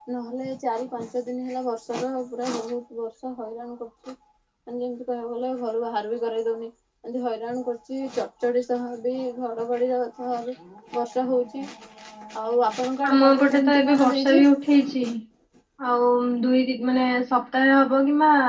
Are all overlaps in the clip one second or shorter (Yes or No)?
No